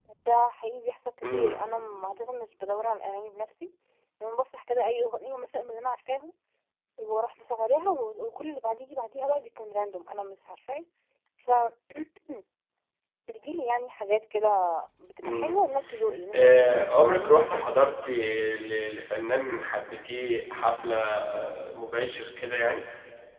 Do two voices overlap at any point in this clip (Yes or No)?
Yes